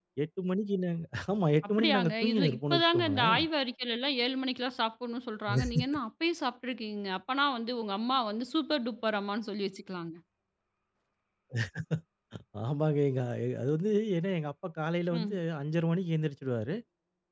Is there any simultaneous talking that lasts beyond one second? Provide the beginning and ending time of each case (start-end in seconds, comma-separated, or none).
1.7-3.4